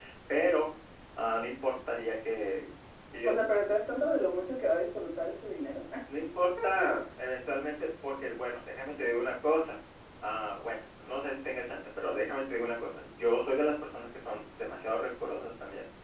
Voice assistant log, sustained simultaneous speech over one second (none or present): none